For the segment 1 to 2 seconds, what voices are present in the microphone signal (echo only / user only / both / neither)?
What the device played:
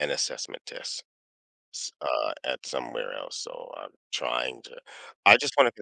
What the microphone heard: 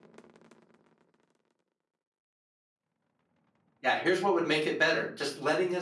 neither